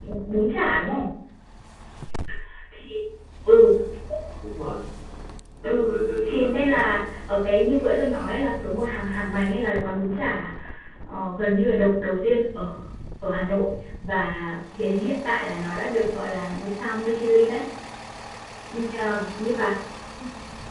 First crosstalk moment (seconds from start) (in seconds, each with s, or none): 5.6 s